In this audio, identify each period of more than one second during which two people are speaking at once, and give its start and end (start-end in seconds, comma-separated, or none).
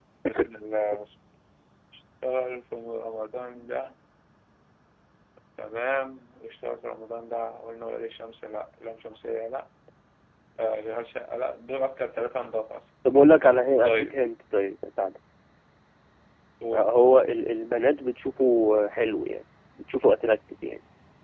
none